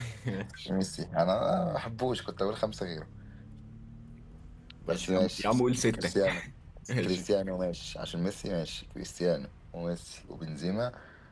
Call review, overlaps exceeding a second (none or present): present